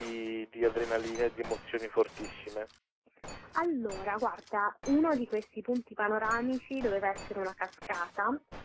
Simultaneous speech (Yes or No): No